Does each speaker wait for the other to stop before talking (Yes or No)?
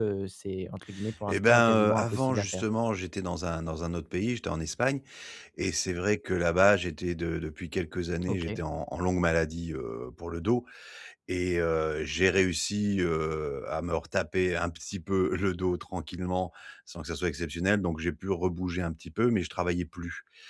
No